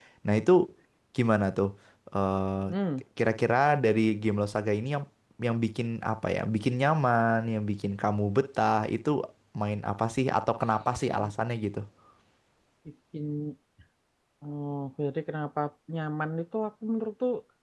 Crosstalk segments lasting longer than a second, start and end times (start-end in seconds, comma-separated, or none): none